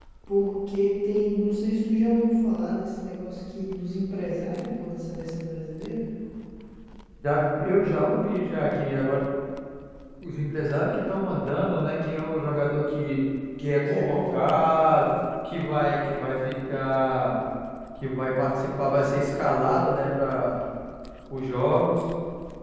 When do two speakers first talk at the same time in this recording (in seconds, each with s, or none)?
13.9 s